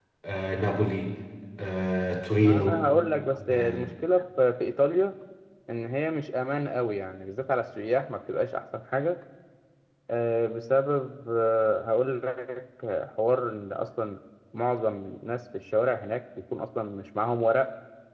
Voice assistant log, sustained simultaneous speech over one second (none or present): none